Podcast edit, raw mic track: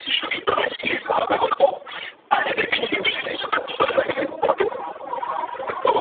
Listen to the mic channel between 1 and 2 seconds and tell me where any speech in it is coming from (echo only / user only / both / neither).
echo only